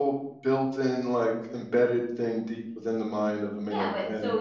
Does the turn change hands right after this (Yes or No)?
Yes